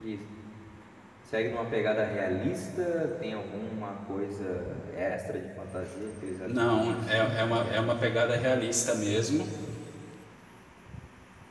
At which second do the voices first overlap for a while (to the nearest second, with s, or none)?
6 s